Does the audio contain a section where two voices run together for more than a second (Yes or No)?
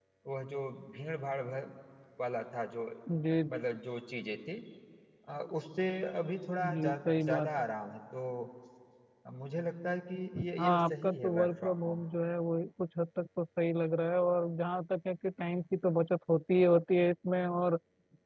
Yes